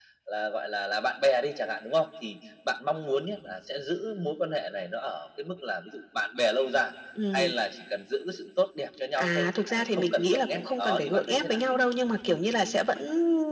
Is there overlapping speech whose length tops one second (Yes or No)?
Yes